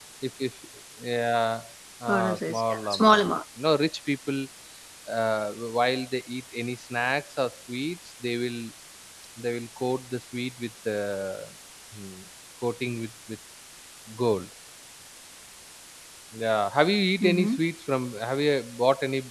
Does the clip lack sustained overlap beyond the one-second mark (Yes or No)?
No